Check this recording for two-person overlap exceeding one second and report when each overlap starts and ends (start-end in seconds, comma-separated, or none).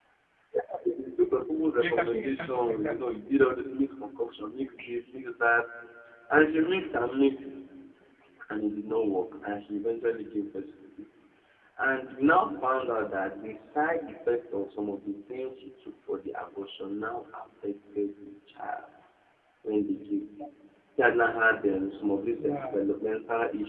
1.8-3.0